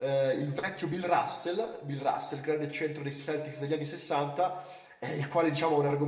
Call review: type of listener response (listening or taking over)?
listening